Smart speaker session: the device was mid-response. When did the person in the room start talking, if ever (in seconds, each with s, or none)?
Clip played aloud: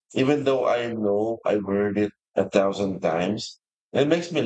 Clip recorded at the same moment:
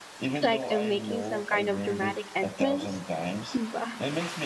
0.4 s